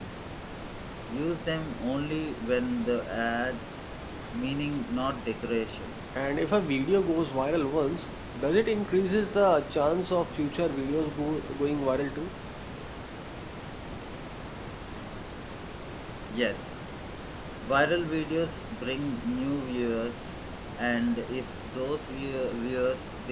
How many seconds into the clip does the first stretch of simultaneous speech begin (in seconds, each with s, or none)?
none